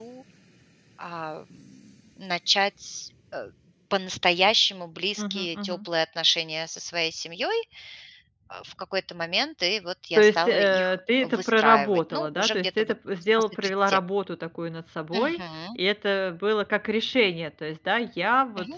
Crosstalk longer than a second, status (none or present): present